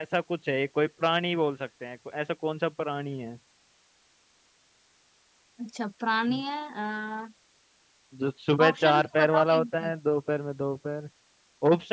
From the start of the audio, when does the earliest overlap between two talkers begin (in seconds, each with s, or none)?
8.7 s